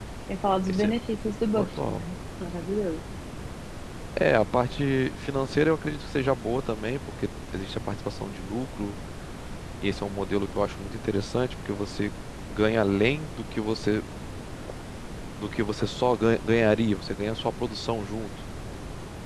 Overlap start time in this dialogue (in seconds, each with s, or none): 0.7 s